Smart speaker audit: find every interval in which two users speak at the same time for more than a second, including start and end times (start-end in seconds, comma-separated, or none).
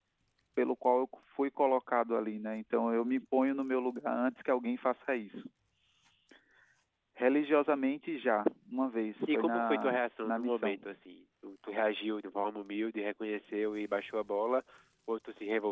9.3-10.8